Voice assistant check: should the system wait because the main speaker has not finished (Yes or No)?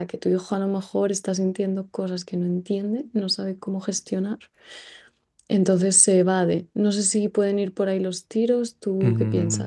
No